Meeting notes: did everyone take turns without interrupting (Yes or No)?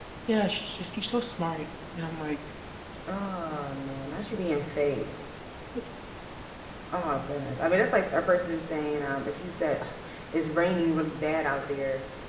Yes